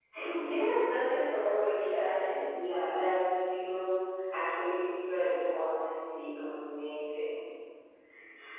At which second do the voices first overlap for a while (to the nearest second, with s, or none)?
none